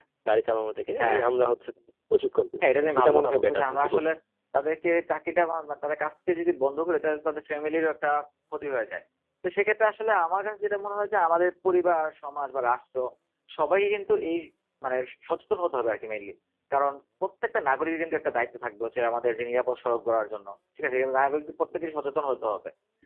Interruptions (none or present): present